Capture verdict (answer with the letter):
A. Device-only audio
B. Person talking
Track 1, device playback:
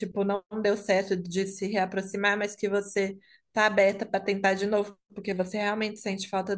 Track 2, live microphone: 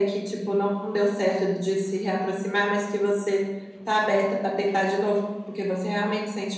A